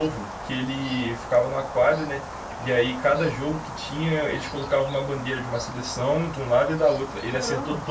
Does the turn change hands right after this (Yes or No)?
No